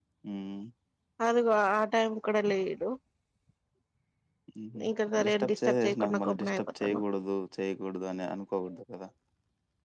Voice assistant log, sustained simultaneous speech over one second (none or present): present